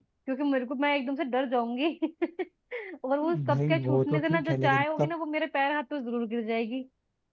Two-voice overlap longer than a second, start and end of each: 3.5-5.1

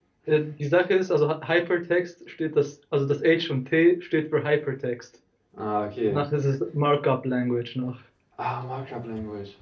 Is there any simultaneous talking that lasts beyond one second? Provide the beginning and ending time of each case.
none

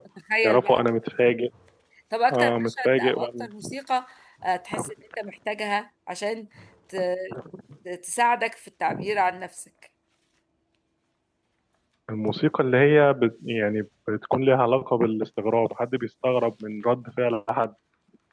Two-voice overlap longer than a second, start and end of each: 2.3-3.7

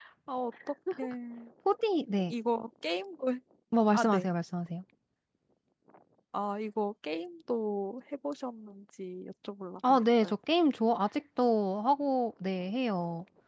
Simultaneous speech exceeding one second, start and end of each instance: none

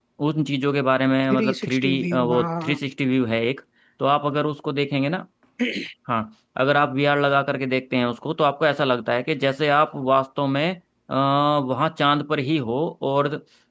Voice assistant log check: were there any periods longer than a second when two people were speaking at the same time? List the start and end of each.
1.3-2.8

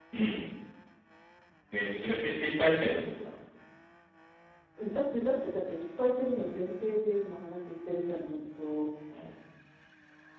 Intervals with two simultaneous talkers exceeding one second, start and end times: none

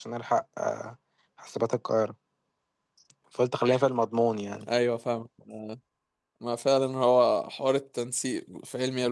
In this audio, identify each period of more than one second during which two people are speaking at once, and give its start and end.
none

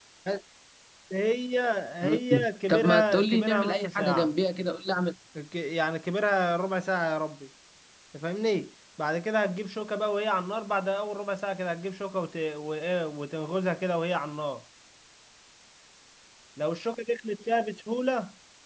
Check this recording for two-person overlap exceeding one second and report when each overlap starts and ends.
2.7-4.3

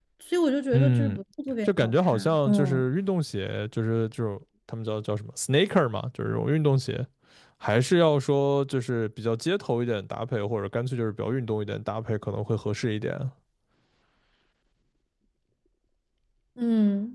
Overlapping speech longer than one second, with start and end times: 1.6-2.8

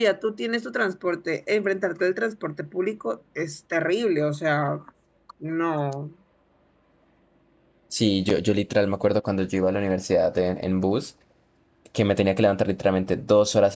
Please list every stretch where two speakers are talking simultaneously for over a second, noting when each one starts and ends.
none

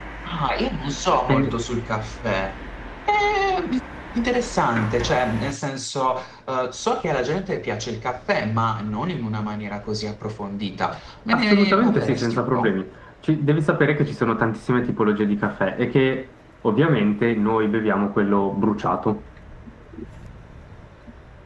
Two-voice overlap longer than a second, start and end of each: 11.3-12.8

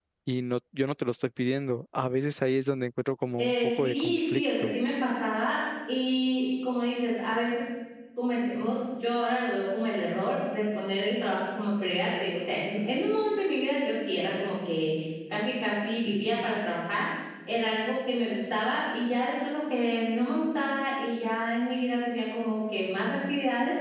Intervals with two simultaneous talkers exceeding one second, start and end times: 3.4-4.7

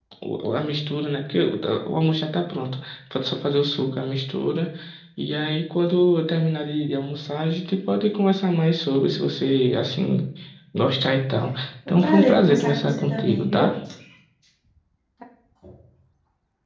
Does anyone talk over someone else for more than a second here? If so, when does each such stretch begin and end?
11.9-13.7

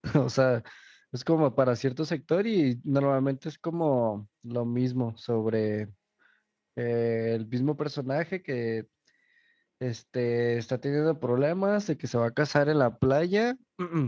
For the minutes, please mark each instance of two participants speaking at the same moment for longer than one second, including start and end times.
none

